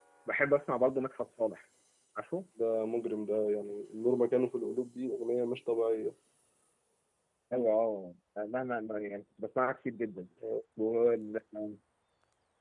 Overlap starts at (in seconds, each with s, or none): none